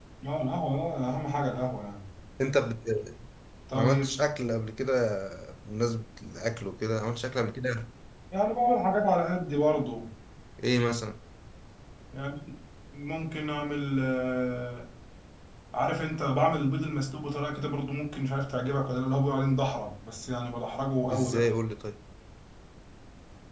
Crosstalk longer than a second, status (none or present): none